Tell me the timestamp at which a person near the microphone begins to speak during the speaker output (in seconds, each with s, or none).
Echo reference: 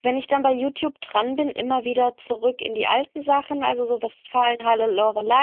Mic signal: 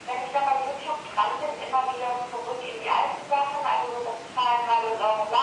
none